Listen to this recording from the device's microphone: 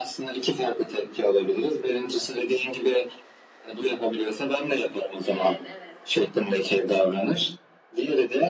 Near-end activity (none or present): present